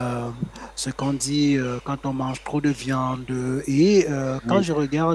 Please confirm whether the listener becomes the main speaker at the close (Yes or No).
No